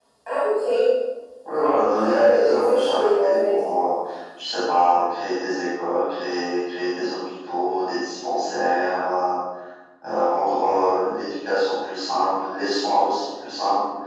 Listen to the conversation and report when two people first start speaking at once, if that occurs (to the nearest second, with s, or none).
2 s